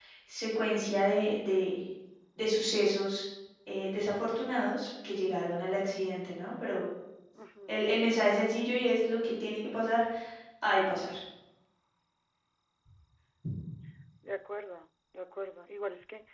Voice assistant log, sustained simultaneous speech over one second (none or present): none